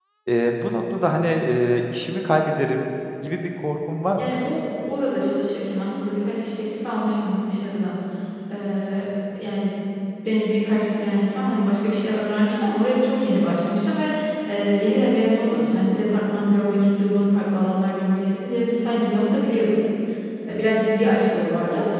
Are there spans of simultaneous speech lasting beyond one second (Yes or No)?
No